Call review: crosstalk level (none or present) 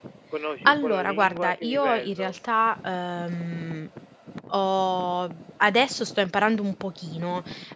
present